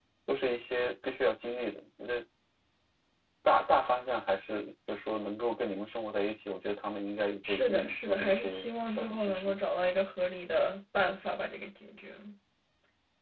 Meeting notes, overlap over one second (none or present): present